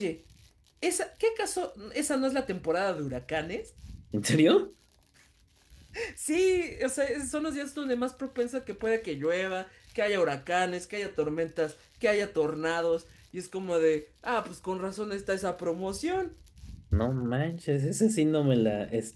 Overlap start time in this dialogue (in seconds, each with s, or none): none